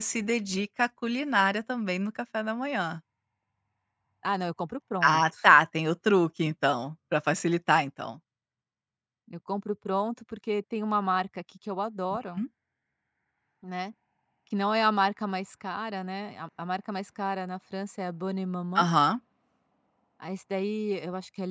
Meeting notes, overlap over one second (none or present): none